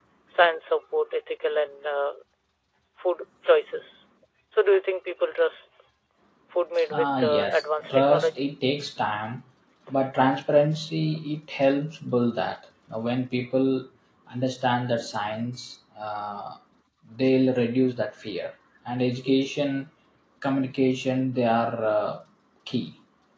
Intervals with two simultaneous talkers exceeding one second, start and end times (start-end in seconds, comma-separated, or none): 6.9-8.5